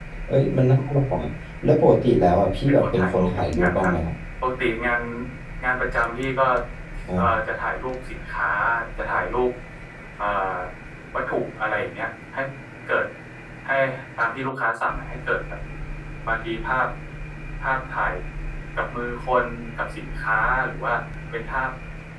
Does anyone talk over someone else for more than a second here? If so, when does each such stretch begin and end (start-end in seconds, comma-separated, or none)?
2.7-3.9